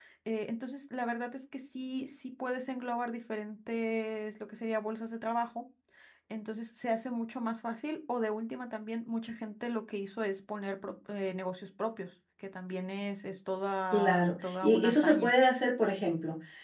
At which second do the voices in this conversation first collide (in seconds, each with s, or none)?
13.9 s